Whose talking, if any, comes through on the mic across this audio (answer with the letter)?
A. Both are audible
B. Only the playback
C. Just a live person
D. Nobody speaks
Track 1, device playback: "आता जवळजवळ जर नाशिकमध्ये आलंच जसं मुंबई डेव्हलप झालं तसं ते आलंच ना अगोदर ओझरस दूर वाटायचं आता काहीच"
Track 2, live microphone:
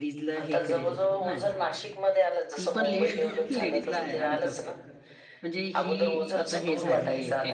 A